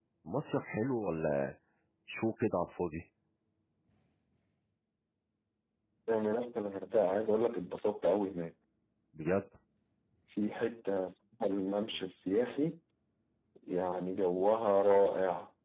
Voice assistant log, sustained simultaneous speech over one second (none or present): none